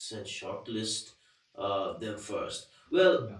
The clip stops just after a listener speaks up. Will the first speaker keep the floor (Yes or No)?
Yes